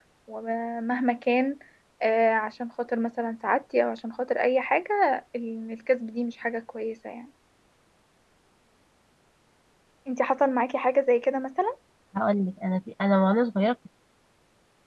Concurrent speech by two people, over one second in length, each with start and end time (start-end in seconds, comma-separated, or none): none